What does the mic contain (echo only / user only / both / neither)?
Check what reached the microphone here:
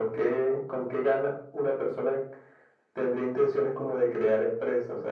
echo only